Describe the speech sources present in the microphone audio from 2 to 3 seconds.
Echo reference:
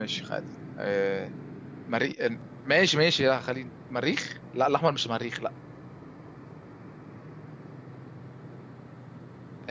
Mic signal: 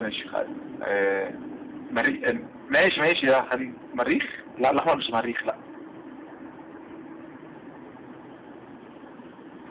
echo only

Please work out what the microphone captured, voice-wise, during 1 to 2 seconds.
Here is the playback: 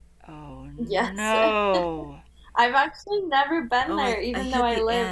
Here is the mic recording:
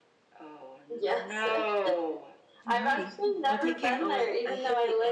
echo only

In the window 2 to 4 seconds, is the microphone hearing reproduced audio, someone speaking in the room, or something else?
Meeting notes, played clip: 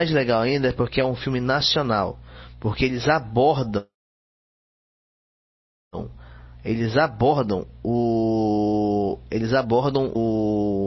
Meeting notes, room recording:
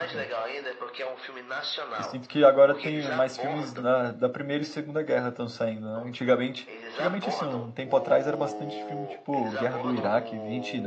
both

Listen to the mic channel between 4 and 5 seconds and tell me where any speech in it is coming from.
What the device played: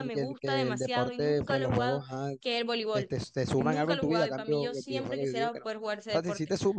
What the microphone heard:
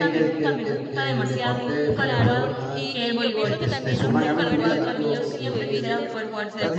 both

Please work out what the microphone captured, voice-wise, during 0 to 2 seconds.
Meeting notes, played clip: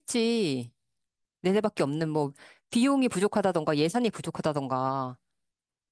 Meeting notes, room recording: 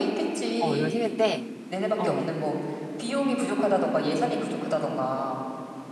both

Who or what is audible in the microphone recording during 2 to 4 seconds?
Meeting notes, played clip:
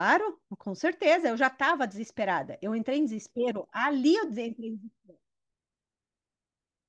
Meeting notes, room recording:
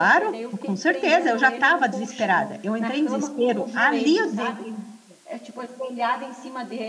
both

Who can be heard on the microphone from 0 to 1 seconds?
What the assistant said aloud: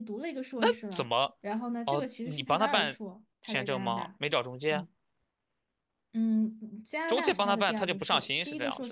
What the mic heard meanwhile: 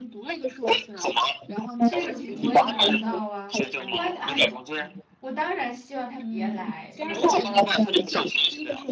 echo only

